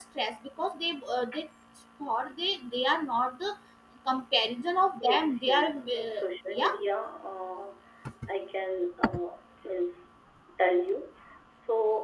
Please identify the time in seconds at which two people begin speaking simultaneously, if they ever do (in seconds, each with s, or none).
5.0 s